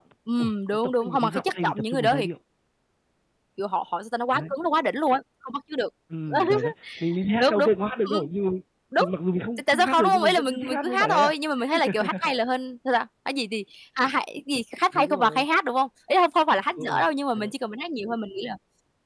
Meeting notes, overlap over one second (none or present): present